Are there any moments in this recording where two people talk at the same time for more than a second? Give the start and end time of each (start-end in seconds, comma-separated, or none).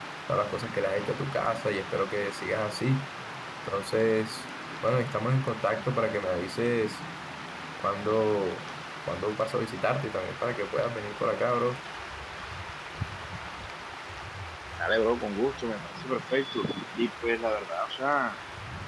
none